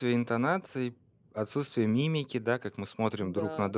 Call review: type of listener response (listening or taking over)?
listening